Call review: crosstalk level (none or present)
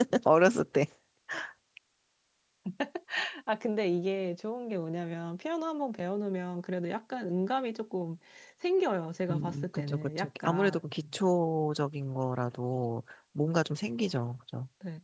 present